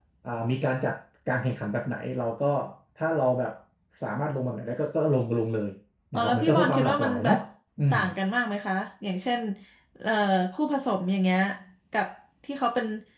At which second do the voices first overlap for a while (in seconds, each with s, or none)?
6.1 s